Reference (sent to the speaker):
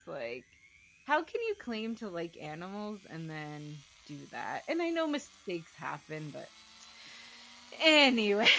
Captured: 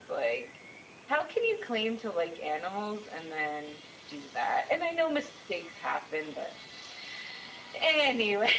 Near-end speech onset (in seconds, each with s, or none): none